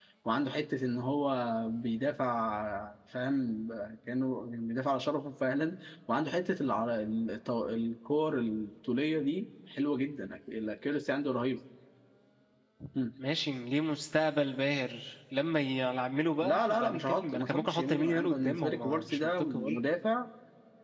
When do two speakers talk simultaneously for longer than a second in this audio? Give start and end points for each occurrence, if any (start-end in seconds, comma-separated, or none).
16.4-19.8